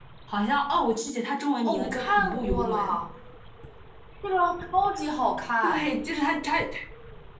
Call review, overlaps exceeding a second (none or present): present